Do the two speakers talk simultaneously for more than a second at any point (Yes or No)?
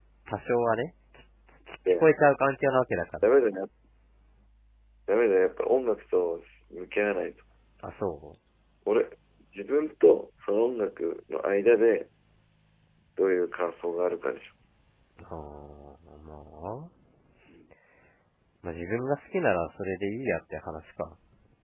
No